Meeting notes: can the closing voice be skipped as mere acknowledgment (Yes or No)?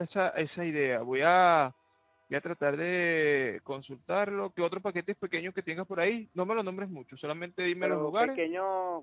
No